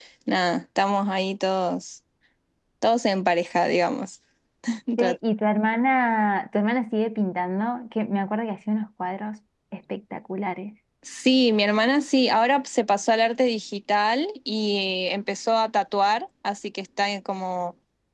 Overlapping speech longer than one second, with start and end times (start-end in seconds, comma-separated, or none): none